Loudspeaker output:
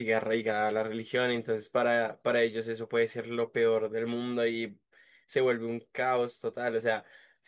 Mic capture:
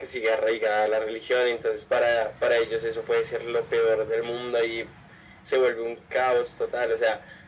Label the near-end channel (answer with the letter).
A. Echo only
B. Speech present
A